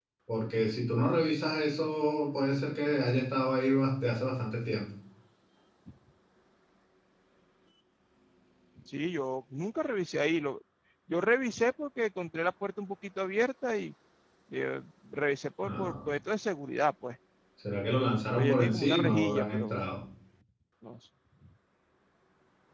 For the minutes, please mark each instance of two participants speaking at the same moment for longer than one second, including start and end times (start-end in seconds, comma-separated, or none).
18.3-19.8